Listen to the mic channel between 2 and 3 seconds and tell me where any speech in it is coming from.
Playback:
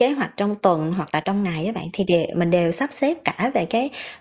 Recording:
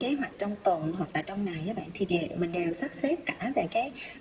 echo only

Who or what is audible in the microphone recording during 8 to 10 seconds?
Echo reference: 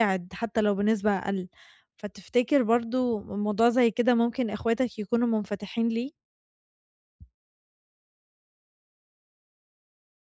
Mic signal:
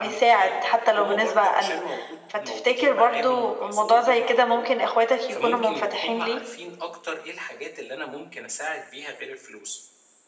user only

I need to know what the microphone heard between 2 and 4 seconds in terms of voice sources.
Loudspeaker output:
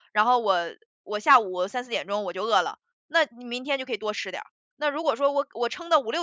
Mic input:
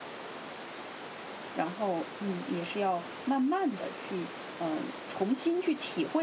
user only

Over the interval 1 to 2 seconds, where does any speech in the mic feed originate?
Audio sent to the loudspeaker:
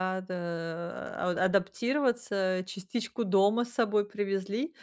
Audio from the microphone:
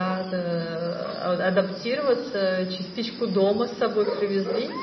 echo only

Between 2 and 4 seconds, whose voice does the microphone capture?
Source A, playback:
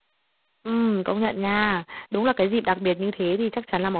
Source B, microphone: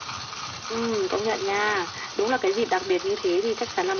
echo only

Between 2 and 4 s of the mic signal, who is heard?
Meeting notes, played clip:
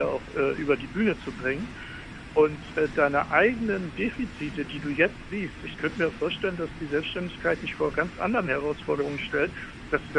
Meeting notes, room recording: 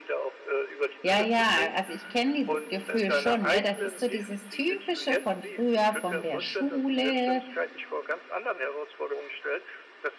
both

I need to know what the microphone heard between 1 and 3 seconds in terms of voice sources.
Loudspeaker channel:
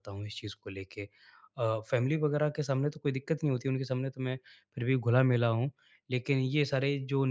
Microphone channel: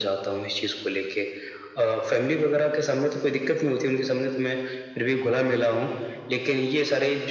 echo only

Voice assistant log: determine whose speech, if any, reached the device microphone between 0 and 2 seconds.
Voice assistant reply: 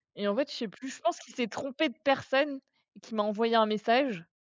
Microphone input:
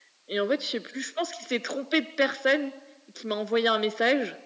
echo only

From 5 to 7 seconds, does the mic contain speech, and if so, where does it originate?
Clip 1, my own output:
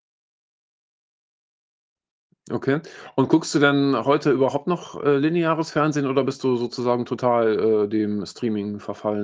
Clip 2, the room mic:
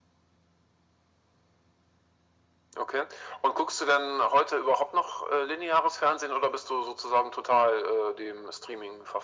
echo only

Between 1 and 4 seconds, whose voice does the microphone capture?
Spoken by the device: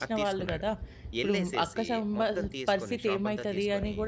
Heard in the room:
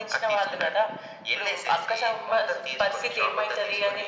echo only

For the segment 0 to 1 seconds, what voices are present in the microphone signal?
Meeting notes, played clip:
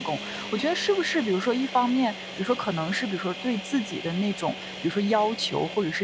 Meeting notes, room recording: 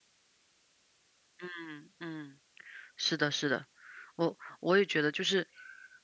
neither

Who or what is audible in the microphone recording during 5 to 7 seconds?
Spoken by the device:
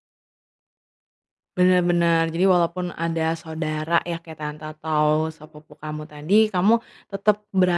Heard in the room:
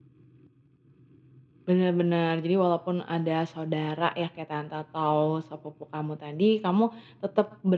echo only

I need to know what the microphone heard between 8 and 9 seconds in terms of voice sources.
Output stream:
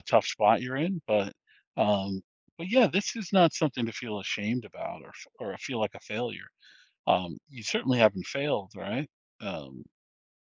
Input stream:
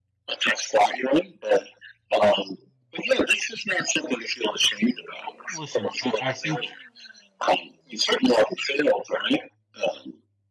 echo only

